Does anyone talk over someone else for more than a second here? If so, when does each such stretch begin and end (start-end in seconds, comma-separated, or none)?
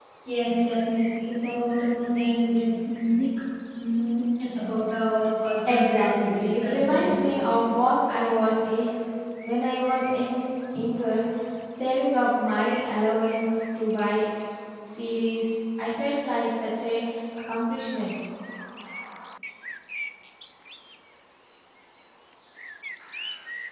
5.6-7.4